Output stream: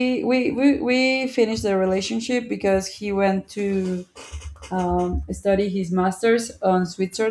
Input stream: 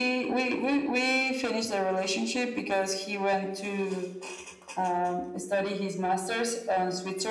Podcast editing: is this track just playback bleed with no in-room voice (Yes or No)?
Yes